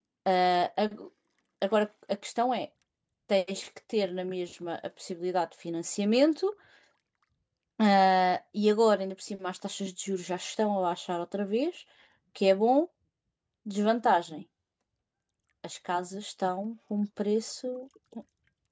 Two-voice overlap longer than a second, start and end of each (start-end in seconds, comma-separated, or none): none